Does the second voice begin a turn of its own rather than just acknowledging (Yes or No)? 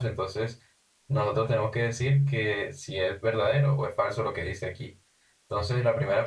Yes